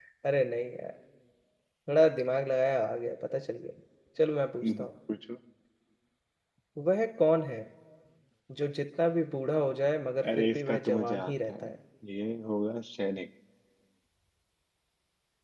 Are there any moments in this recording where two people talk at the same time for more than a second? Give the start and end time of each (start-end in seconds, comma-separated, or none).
10.4-11.7